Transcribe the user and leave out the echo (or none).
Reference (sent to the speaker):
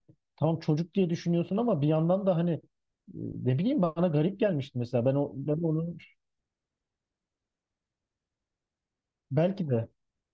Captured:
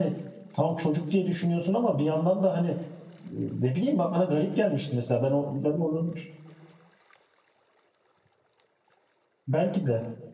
none